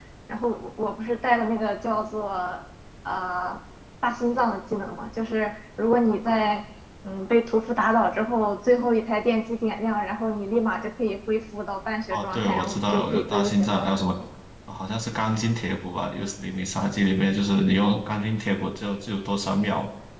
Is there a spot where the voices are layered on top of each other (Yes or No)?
Yes